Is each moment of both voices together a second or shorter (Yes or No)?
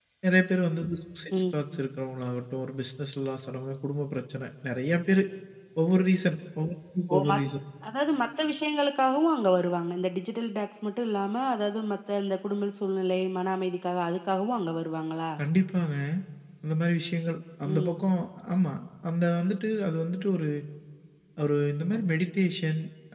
Yes